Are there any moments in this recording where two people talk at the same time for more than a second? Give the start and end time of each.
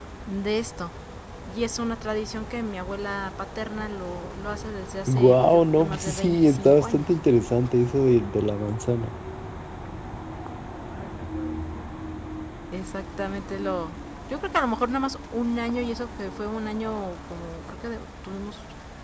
5.1-7.1

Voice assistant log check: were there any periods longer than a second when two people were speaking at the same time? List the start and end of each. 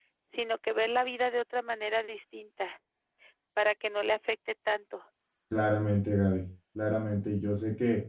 none

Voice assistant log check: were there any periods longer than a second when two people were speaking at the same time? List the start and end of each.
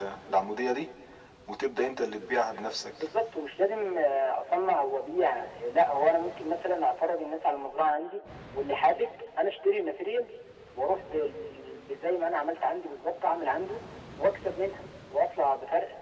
none

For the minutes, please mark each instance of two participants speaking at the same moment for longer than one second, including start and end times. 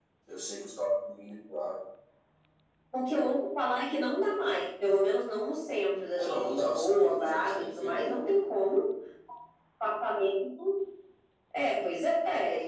6.2-8.4

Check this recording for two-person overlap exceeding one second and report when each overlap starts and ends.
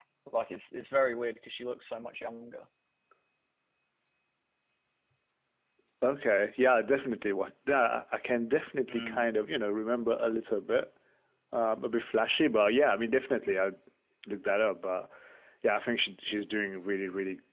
none

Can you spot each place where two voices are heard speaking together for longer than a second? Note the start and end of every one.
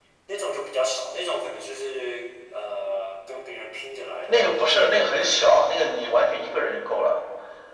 4.3-5.6

